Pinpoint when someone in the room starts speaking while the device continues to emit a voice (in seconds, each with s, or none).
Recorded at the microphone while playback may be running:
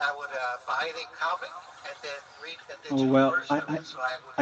2.9 s